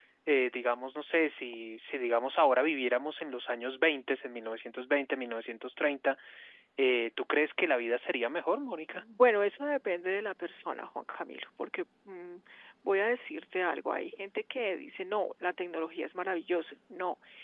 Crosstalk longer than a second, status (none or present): none